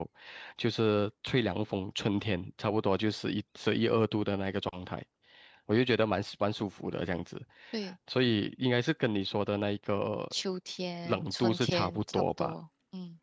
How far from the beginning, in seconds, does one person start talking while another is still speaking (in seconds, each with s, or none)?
11.1 s